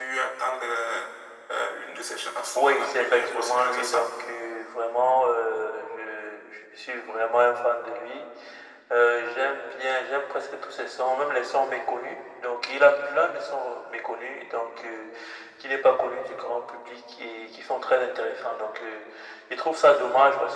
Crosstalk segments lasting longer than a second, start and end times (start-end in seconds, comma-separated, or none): 2.5-4.1